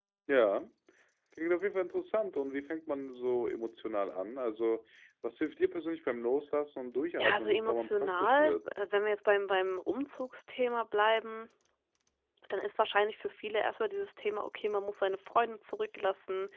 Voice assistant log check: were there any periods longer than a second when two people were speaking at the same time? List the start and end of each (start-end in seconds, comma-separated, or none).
7.2-8.6